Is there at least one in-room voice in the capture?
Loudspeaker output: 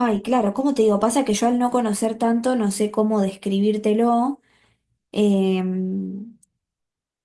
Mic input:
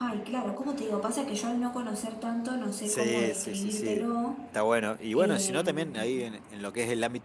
Yes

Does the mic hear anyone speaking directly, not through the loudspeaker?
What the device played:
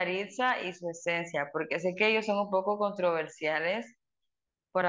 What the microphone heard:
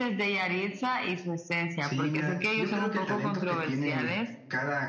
Yes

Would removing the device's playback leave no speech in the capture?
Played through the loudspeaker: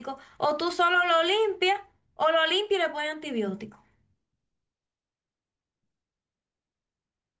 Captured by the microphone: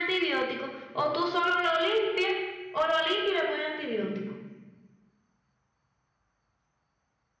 Yes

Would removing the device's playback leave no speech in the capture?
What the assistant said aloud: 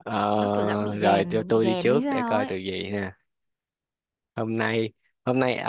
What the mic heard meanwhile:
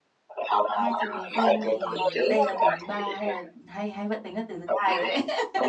No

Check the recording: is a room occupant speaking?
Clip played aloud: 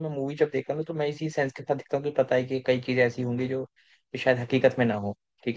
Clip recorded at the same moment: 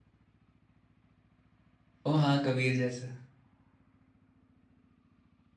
Yes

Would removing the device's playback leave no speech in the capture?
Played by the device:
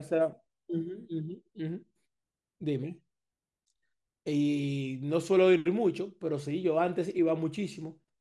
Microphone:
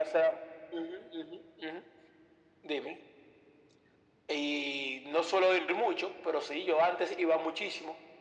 Yes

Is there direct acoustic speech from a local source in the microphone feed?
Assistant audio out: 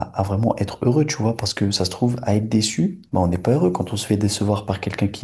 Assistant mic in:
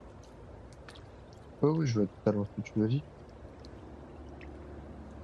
Yes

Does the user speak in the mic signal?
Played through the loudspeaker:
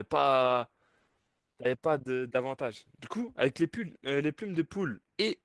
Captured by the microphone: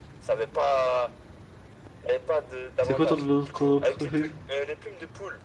Yes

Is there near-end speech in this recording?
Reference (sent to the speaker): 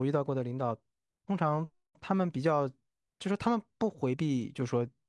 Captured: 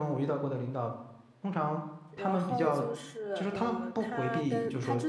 Yes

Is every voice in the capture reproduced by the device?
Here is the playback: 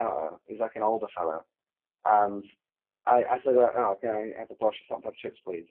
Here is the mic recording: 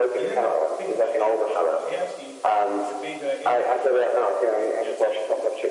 No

